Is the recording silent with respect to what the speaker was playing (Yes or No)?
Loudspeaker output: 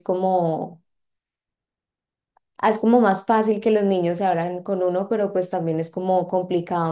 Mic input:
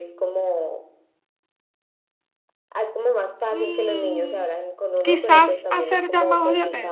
No